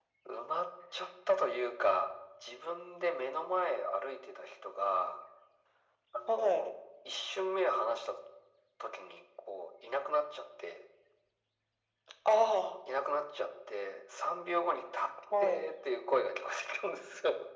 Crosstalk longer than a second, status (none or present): none